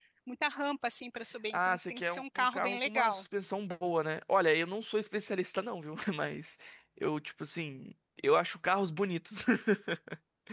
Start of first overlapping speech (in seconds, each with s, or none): 1.5 s